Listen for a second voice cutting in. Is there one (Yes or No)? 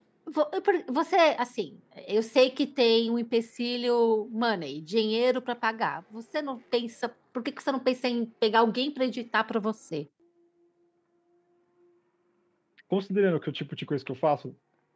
No